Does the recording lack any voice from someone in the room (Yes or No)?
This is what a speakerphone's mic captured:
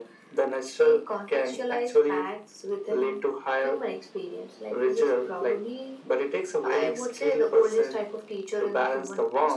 Yes